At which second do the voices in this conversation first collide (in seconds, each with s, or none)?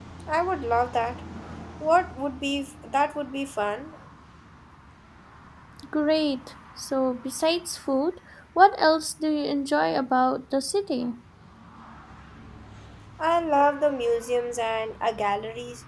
none